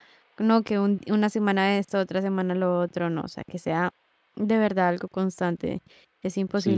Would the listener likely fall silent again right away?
No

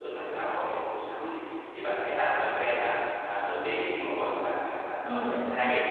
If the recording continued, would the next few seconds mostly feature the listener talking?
No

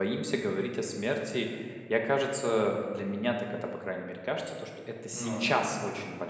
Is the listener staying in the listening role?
Yes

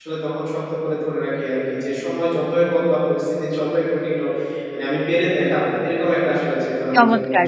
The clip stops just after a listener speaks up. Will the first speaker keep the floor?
No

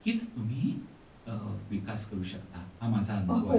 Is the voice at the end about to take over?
Yes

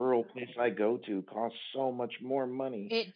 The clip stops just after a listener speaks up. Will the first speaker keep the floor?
Yes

